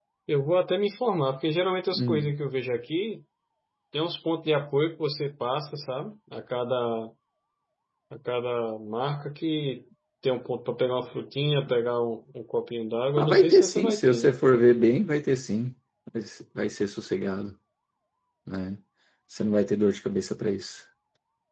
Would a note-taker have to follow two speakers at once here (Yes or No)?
Yes